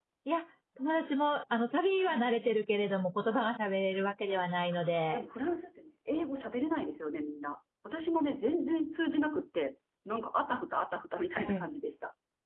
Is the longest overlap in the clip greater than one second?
No

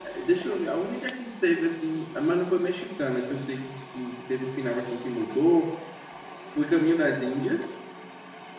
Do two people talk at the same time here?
No

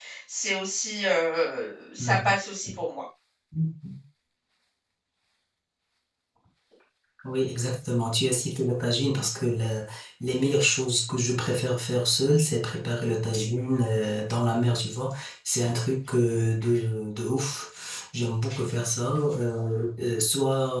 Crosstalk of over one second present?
No

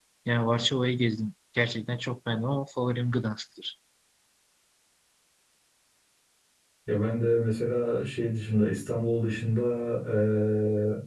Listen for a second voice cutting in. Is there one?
No

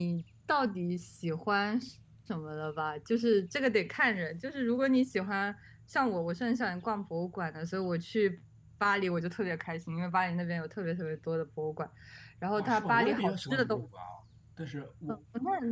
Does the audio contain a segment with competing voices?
Yes, from 12.6 s

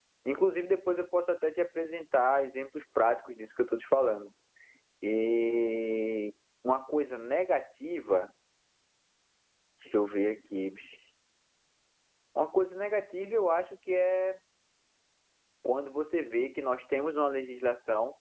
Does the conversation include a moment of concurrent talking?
No

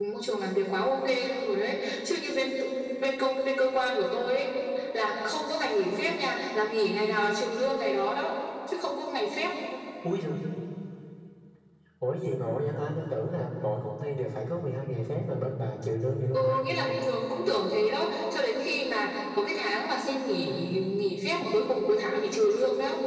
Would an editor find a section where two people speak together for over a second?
No

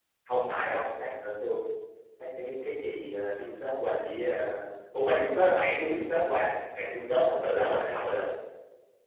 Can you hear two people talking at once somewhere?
No

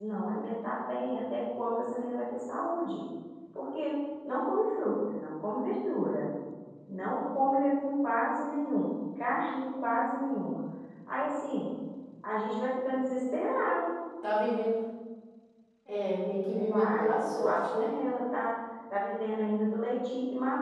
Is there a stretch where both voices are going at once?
Yes, from 16.5 s

